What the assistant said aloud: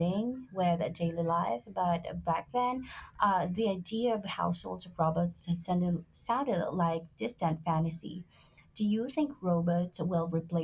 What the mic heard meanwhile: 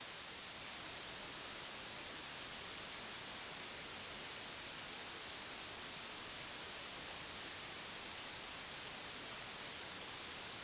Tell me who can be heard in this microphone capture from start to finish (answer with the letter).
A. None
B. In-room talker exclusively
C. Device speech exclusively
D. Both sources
A